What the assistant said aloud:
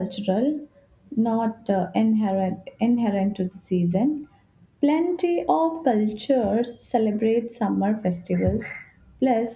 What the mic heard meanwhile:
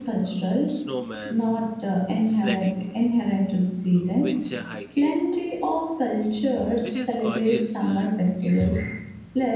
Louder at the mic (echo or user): echo